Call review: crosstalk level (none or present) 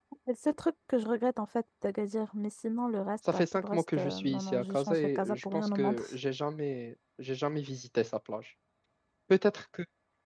present